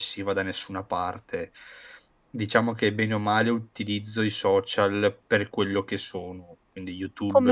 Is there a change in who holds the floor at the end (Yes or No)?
Yes